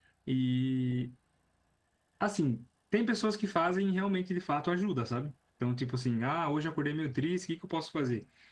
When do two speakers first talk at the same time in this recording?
none

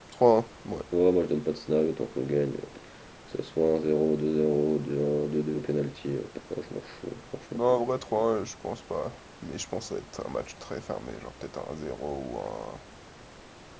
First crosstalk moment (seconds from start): none

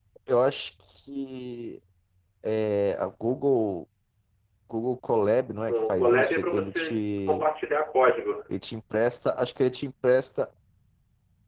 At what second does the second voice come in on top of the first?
5.7 s

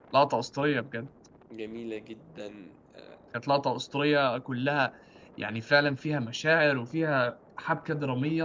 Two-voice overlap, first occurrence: none

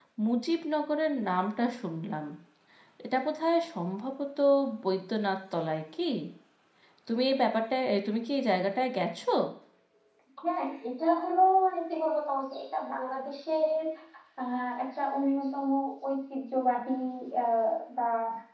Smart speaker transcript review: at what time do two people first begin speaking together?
none

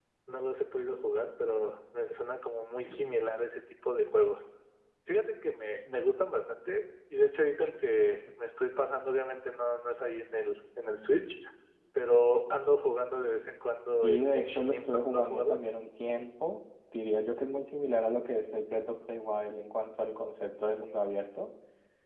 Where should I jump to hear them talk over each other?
14.0 s

